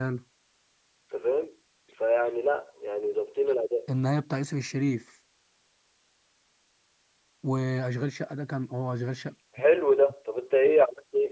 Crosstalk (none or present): none